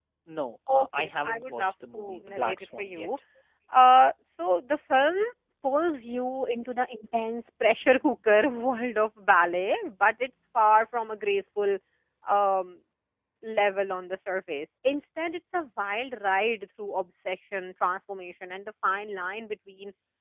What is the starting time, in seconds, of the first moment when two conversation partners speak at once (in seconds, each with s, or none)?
0.7 s